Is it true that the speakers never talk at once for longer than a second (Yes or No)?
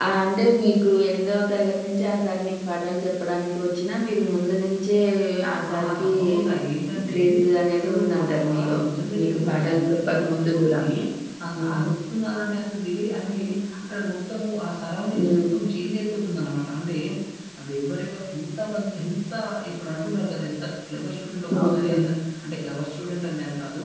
No